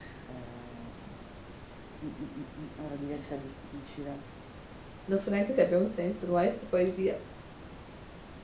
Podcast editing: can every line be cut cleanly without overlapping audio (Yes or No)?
Yes